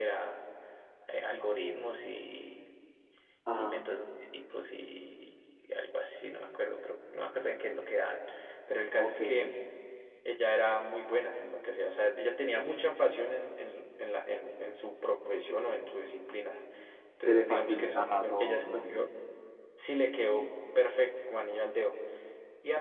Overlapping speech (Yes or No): Yes